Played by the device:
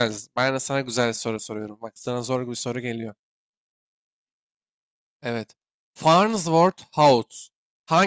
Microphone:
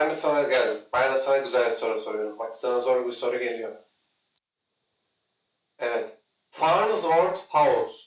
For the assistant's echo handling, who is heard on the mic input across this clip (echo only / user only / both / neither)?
echo only